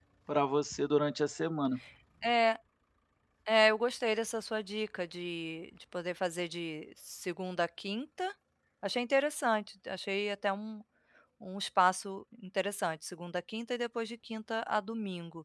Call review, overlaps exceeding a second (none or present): none